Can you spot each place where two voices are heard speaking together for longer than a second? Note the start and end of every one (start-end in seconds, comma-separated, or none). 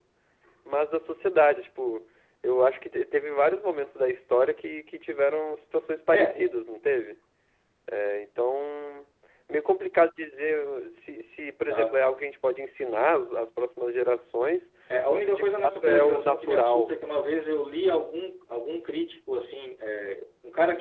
15.1-16.9